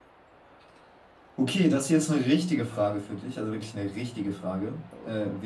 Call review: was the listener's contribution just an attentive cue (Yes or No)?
Yes